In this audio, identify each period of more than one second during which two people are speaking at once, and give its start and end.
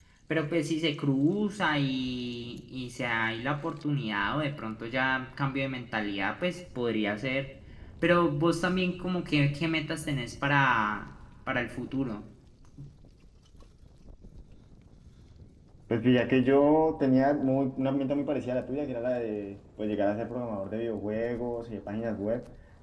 none

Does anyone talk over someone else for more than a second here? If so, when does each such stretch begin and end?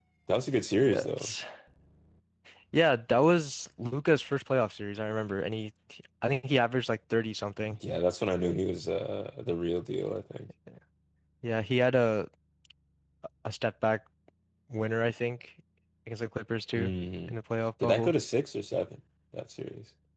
none

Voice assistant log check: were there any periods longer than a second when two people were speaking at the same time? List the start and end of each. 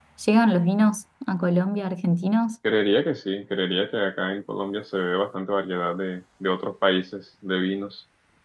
none

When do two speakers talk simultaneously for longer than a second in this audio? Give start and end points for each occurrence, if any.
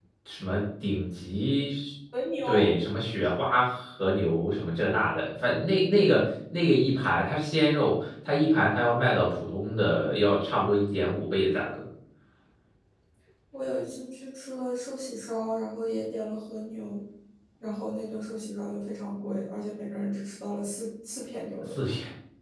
none

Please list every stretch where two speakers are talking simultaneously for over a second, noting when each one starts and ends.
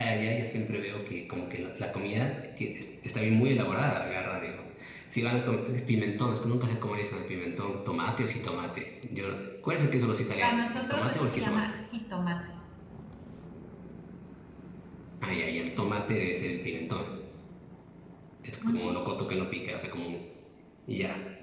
10.4-11.7

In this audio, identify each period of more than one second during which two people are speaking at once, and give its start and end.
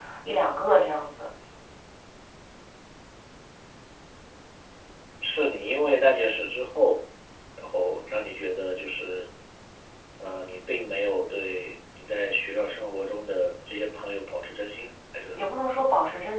none

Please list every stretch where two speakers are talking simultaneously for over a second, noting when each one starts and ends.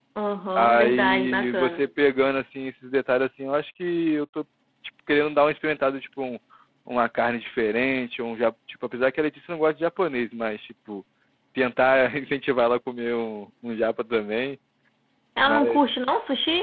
0.6-1.8

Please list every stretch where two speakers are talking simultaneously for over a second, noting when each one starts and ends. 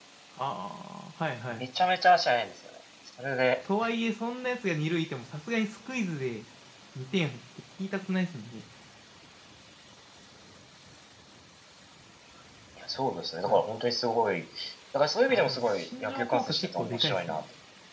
15.3-17.4

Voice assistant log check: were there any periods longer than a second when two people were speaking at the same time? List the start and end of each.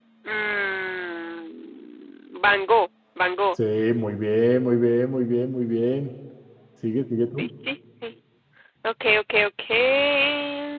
none

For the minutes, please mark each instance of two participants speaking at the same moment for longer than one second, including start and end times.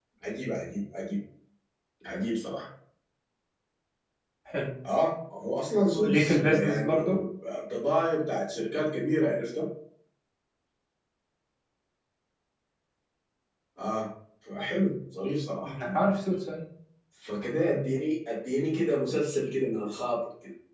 5.9-7.2

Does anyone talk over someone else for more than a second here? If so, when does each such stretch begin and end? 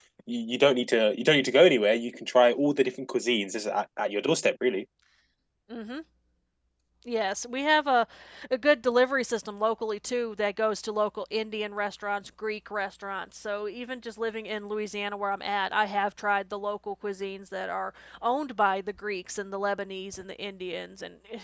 none

